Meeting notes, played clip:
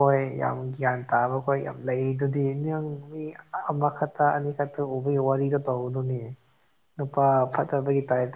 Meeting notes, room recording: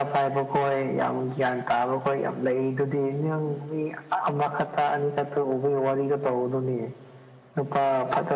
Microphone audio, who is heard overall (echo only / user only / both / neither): echo only